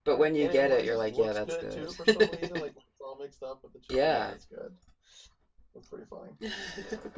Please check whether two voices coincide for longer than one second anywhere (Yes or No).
Yes